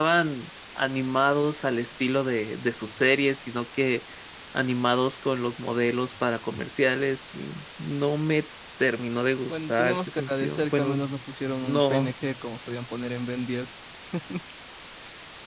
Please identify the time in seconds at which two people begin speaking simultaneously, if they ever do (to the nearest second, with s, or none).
9 s